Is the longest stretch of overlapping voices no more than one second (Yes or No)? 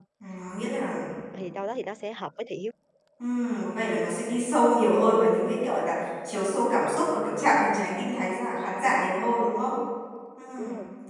Yes